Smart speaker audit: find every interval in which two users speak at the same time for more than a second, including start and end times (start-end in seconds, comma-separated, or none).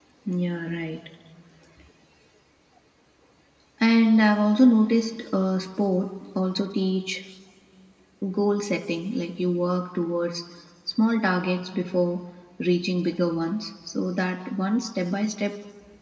none